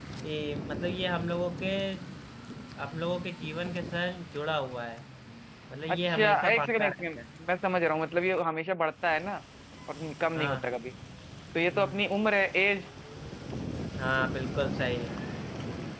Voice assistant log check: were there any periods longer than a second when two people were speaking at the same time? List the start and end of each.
5.9-7.2

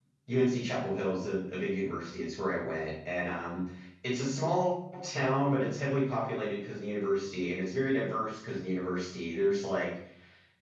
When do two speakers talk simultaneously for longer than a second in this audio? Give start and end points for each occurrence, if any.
none

